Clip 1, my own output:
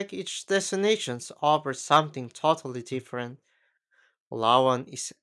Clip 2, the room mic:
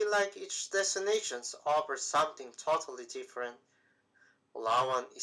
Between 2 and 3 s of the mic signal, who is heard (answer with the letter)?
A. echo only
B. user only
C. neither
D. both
A